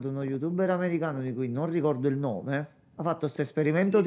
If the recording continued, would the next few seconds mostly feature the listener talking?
No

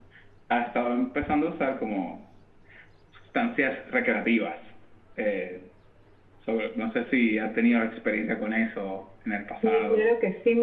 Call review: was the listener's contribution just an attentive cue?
No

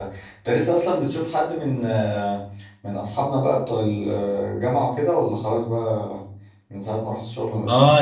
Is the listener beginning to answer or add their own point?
Yes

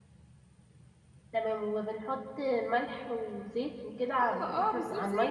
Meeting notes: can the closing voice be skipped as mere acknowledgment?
No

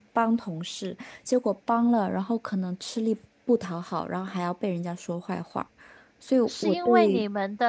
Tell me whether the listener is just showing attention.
No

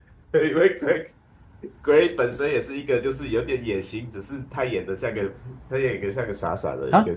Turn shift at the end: Yes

